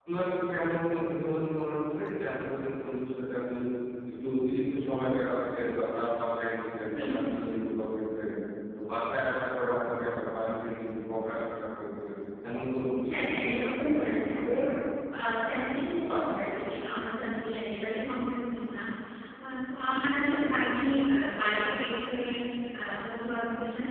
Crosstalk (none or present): present